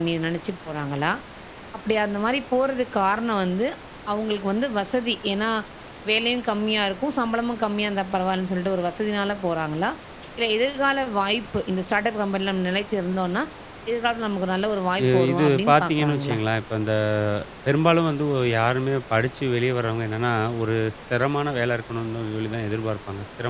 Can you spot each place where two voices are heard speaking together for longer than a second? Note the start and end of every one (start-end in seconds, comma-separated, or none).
15.0-16.4